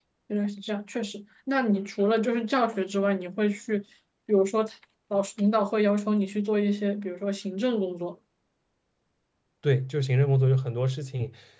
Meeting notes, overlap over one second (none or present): none